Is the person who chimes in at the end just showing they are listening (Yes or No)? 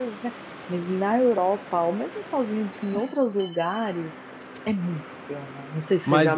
No